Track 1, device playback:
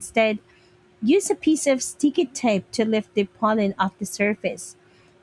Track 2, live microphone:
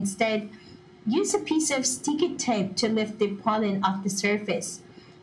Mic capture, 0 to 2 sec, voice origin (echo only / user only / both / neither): echo only